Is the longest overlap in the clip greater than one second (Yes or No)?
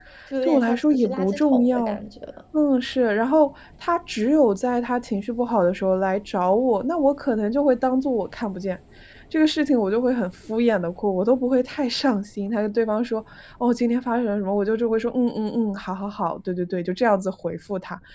Yes